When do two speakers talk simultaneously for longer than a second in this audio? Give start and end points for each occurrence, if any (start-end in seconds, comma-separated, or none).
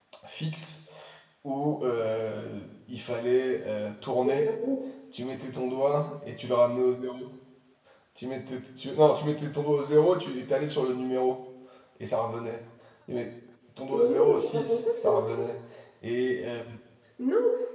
13.9-15.5